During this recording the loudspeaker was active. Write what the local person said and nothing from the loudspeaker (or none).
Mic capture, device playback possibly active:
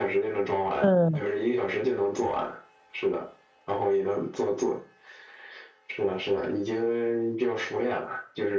嗯